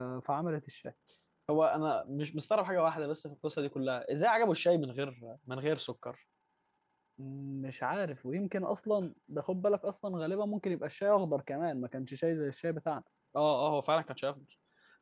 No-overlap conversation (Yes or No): Yes